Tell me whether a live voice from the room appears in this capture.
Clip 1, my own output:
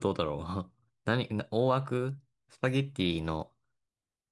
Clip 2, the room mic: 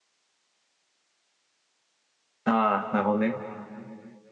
Yes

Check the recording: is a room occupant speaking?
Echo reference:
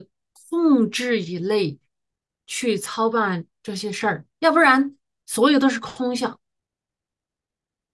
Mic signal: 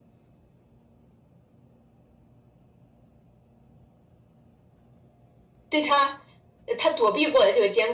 Yes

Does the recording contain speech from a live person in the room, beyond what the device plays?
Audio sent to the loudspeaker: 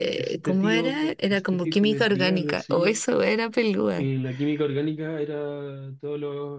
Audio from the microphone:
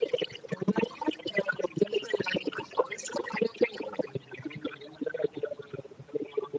No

